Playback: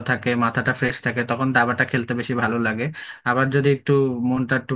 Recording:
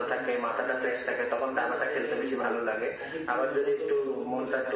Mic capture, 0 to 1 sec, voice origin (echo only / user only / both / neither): both